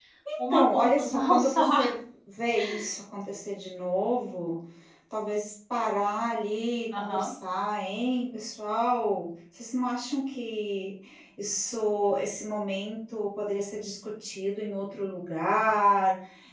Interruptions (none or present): present